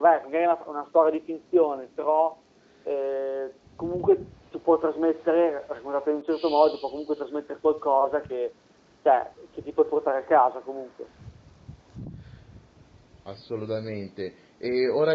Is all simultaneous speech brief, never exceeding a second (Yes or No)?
Yes